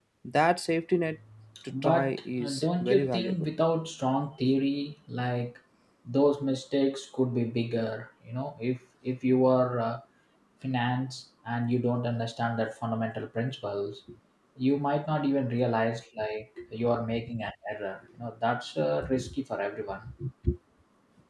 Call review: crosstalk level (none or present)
present